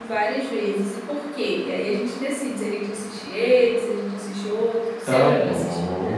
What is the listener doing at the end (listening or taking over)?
taking over